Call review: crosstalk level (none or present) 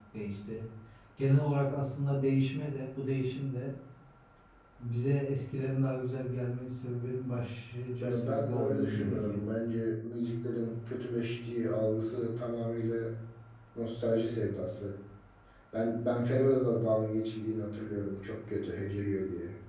present